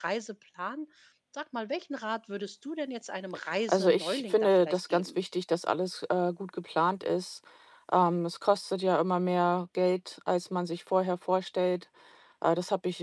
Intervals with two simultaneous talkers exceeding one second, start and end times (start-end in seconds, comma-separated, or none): 3.7-5.1